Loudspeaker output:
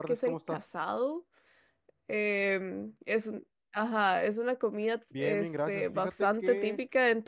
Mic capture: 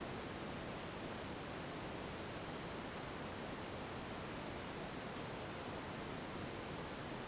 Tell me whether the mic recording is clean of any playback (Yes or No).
Yes